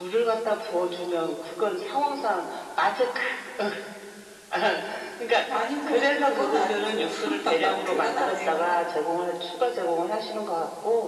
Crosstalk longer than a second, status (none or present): present